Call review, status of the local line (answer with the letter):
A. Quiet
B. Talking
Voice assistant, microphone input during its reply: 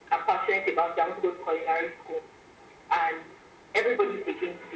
A